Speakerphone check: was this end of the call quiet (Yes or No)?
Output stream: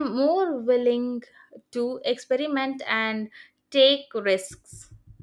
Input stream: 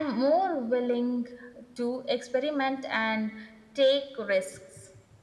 Yes